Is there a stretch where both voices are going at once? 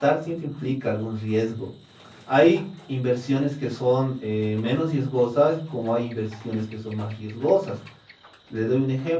No

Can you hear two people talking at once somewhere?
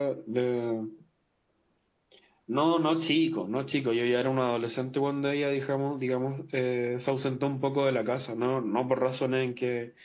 No

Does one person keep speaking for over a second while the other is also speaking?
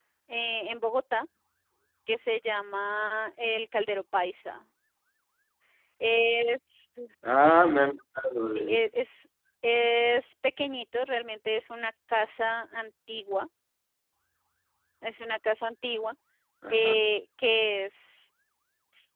No

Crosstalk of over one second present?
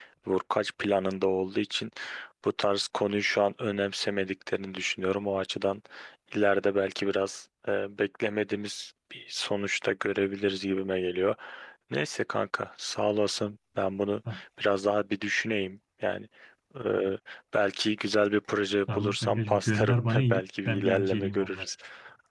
Yes, from 18.9 s

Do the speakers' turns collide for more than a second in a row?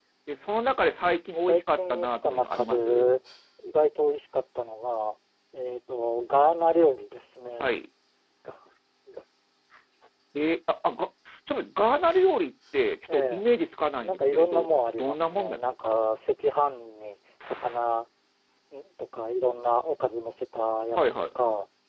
Yes, from 1.5 s

